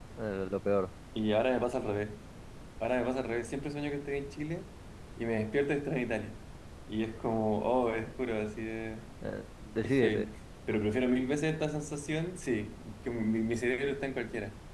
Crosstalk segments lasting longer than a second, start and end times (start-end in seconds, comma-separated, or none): none